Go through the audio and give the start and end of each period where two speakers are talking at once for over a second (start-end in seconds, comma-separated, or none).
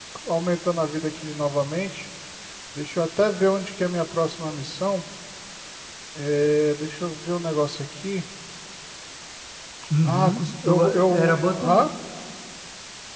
10.0-11.9